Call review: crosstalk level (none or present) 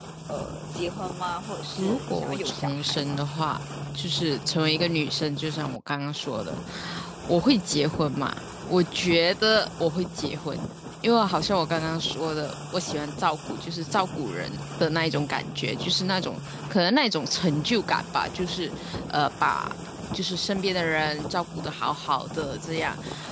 present